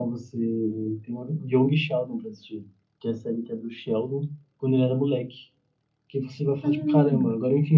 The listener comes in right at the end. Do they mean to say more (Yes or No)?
No